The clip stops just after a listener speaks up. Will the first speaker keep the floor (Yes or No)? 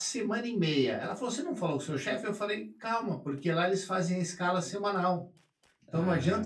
Yes